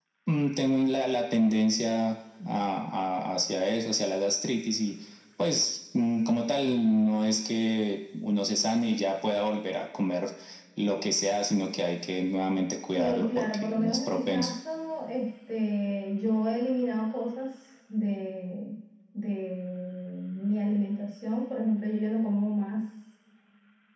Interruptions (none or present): present